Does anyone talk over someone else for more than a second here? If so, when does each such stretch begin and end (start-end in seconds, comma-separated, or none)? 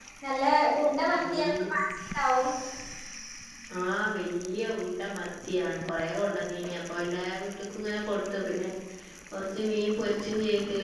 none